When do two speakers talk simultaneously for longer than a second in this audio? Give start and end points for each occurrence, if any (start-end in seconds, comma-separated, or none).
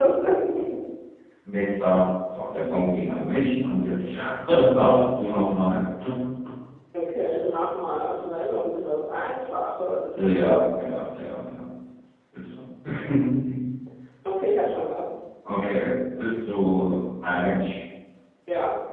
none